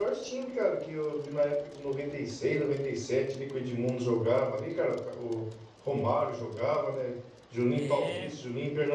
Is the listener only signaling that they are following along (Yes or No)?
Yes